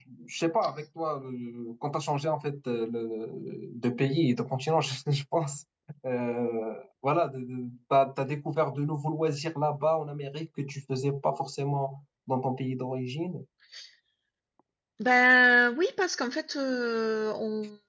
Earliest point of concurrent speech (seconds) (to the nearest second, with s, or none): none